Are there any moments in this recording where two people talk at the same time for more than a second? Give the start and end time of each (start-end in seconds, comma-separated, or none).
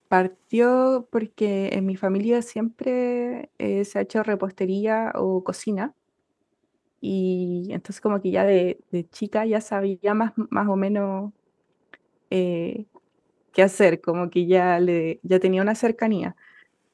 none